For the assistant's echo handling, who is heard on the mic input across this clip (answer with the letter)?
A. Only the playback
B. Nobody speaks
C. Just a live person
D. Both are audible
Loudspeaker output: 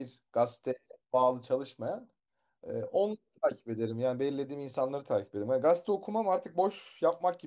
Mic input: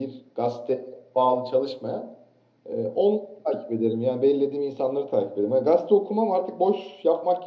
A